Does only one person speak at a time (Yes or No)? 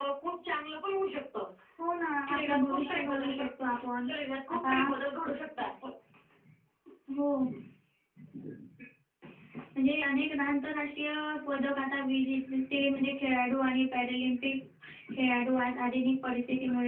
No